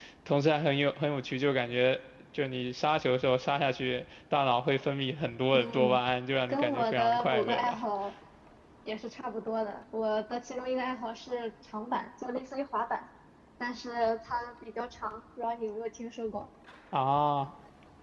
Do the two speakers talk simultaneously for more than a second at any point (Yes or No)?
Yes